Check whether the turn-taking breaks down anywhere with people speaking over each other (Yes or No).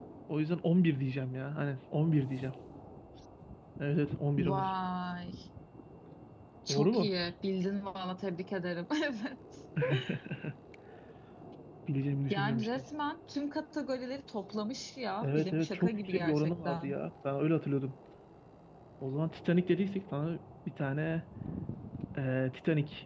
Yes